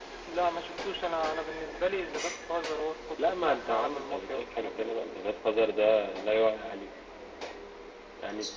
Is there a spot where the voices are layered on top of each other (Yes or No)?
Yes